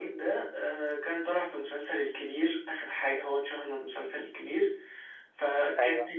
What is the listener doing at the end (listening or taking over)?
listening